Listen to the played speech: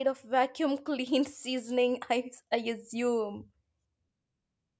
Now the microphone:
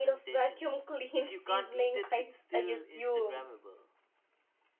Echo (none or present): present